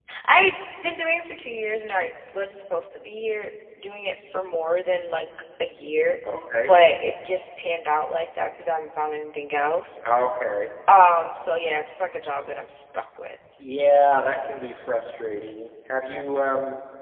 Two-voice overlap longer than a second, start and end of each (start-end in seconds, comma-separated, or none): none